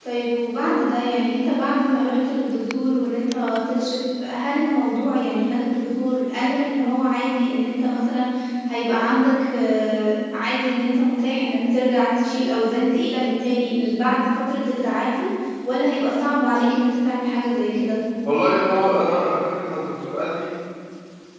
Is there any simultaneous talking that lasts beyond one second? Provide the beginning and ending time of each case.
none

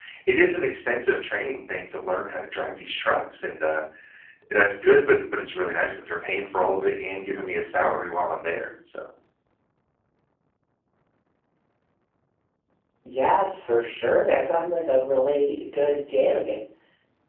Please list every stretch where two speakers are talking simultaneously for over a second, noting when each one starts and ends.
none

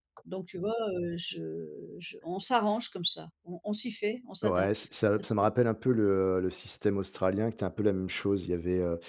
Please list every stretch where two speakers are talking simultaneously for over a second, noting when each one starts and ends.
none

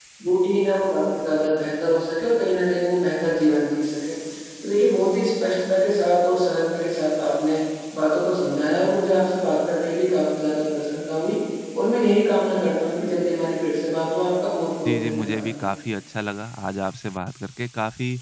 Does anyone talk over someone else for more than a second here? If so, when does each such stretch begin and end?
none

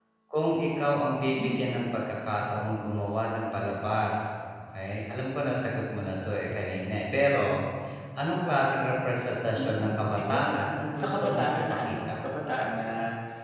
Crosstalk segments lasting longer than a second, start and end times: 9.6-12.1

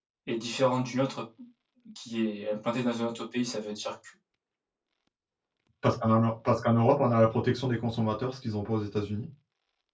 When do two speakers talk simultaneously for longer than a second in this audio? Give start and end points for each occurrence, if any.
none

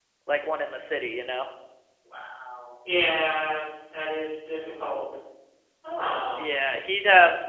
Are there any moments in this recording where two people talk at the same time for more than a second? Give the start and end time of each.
none

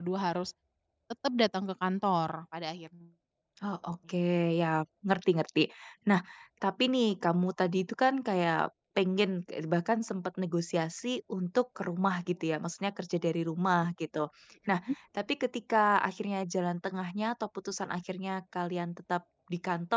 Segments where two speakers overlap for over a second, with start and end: none

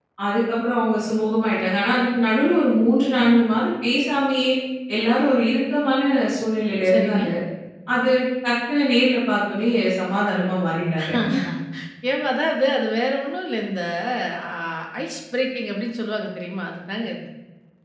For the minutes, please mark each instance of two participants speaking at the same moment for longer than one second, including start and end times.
none

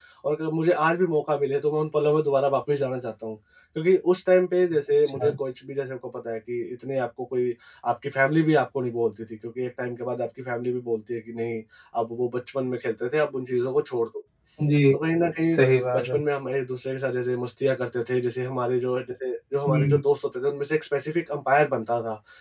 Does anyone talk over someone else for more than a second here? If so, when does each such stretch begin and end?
none

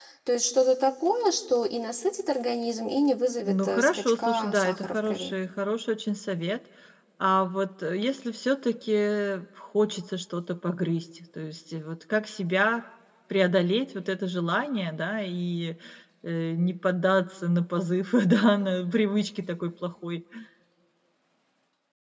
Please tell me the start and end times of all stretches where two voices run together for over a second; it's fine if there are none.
3.4-5.4

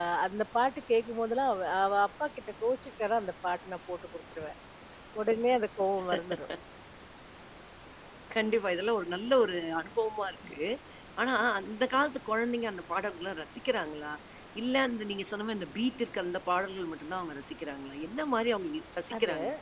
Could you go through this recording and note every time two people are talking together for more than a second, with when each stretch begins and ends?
none

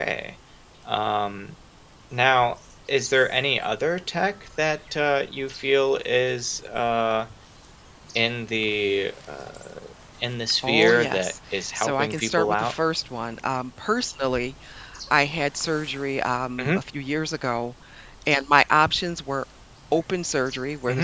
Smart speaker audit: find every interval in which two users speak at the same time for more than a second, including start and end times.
10.6-12.7

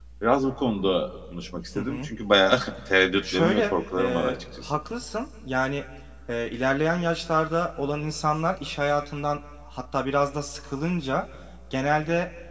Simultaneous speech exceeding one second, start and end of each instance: 3.3-4.8

